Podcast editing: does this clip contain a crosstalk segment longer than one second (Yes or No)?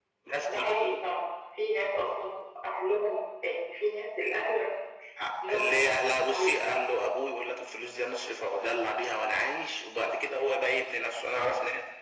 No